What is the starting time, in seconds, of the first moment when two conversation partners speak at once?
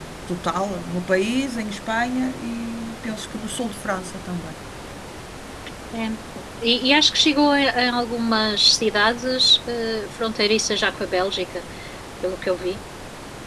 none

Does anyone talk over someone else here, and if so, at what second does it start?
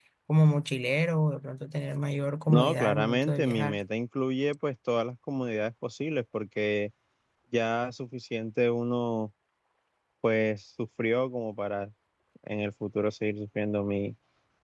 2 s

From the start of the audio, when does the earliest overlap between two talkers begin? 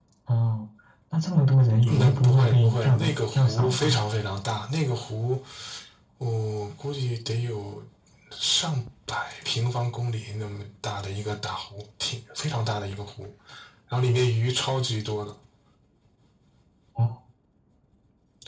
2 s

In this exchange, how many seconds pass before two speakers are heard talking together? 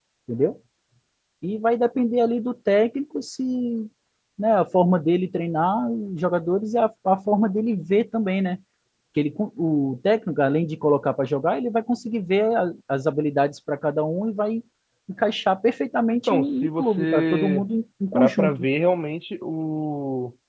16 s

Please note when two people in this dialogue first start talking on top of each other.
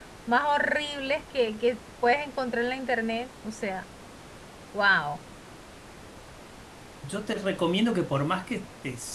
none

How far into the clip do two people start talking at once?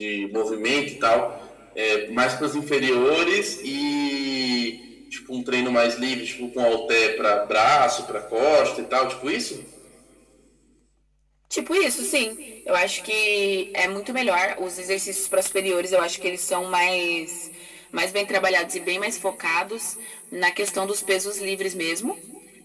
none

